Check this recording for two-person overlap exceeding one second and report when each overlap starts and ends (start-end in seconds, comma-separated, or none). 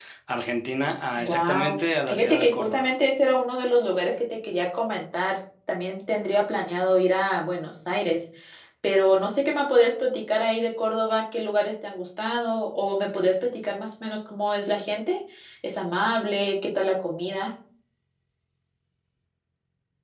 1.2-2.9